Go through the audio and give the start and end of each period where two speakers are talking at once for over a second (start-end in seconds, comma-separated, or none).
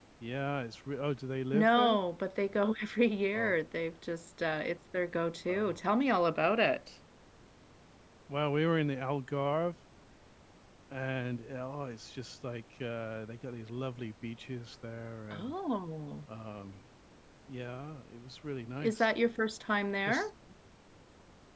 none